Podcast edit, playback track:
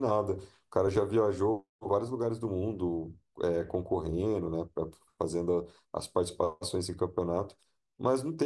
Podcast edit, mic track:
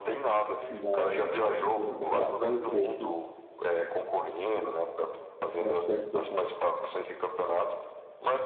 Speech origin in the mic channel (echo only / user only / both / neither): both